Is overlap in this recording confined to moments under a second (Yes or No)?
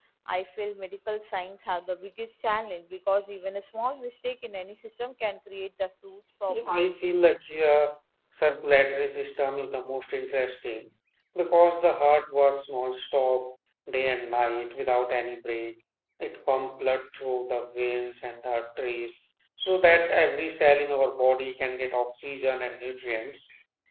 Yes